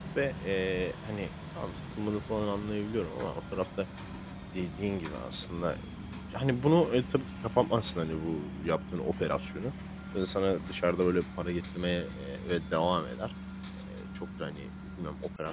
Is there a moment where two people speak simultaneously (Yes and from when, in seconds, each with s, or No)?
No